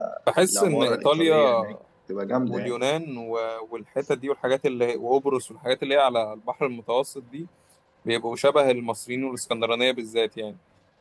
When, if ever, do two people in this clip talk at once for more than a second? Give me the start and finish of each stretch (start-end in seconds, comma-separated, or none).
0.5-1.7